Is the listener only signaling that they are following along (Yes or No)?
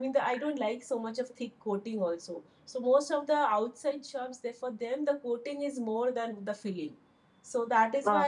Yes